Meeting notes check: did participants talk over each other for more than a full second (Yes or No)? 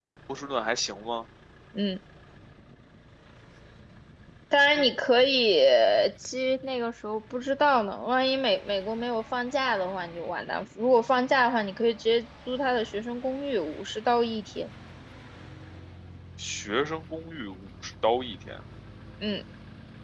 No